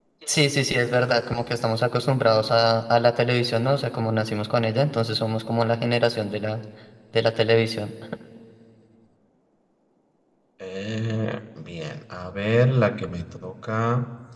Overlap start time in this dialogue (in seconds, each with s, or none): none